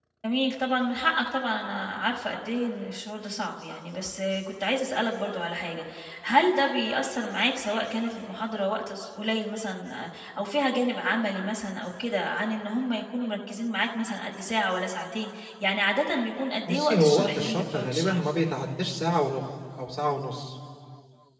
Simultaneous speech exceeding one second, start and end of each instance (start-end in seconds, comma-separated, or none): 16.7-18.3